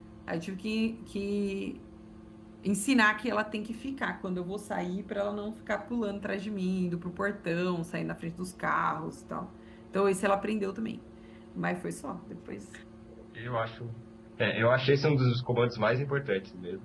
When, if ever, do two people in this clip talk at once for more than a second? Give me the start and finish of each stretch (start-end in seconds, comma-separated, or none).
none